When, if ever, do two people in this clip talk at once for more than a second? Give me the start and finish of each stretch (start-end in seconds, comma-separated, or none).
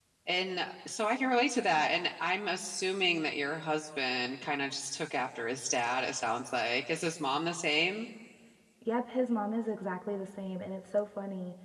none